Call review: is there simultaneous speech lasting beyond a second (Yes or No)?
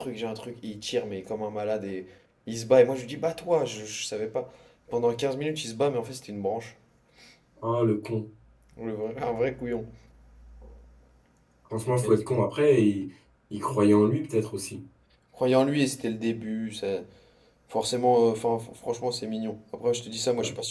No